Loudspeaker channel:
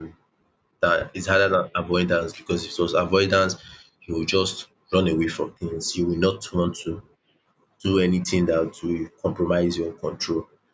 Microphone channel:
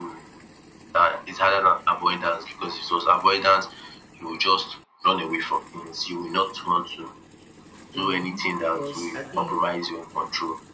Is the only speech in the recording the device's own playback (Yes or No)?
No